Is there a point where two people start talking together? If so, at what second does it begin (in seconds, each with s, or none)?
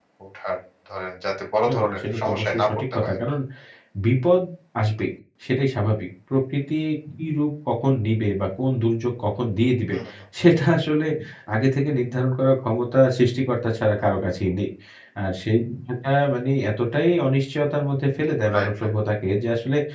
1.7 s